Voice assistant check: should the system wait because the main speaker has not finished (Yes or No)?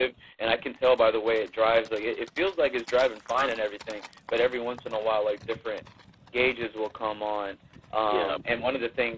Yes